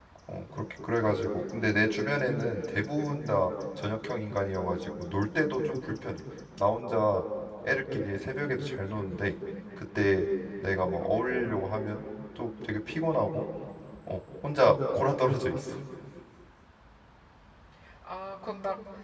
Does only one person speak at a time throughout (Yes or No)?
No